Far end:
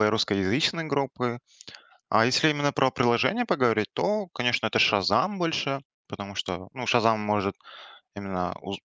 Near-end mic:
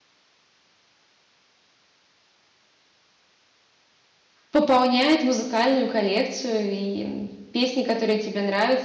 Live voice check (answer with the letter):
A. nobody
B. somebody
B